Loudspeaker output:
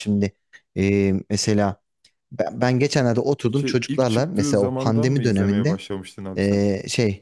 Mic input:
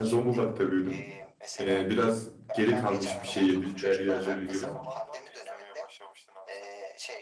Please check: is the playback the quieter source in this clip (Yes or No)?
Yes